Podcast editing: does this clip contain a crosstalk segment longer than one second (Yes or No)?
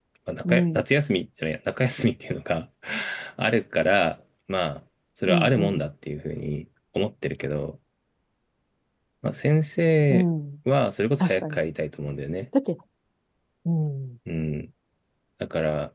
No